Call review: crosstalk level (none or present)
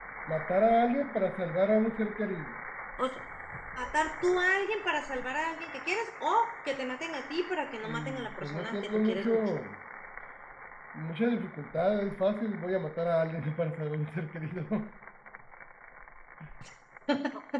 present